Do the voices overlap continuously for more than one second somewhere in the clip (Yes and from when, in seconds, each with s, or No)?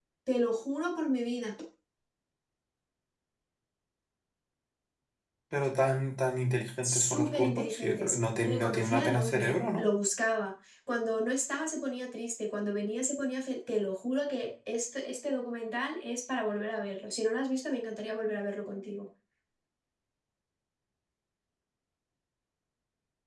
Yes, from 6.8 s